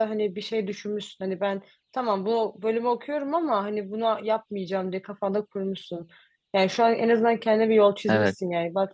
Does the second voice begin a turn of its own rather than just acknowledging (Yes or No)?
No